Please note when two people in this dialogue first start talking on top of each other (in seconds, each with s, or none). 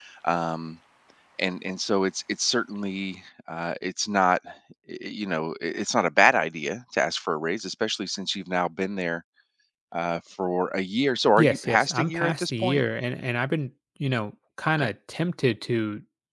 11.4 s